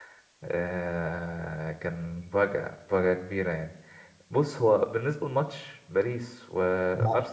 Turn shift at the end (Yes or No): No